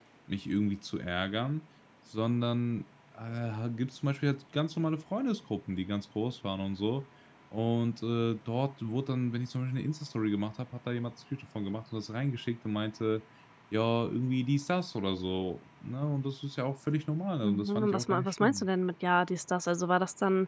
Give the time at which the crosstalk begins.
17.4 s

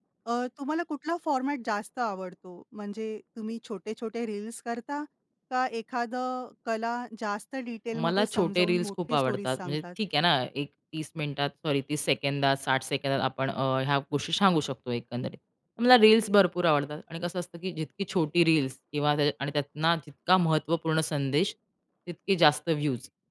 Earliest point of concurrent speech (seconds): 7.9 s

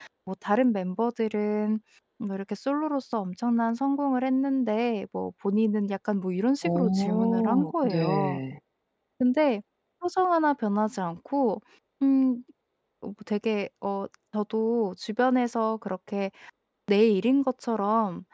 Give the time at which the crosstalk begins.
6.6 s

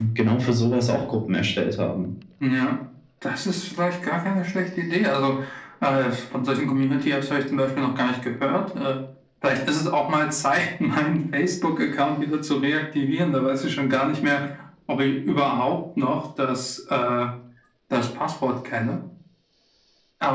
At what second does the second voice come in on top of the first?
none

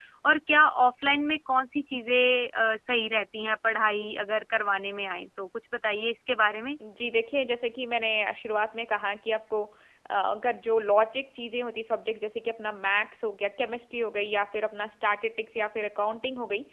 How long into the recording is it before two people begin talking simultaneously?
none

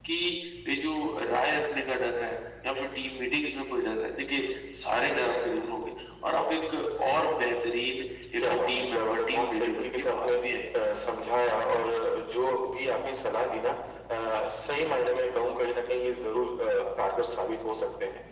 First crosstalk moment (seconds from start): 8.4 s

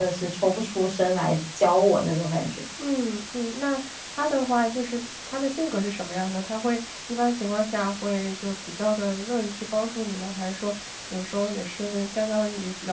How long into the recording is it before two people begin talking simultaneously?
none

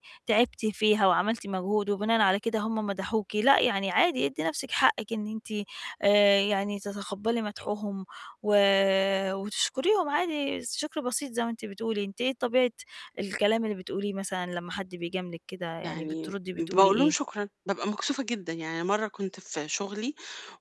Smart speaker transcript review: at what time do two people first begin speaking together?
15.8 s

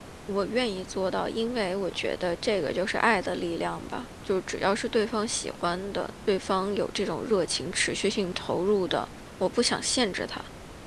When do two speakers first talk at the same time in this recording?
none

